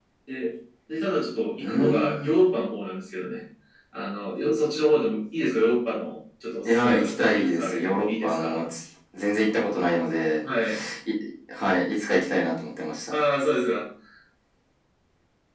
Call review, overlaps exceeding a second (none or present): present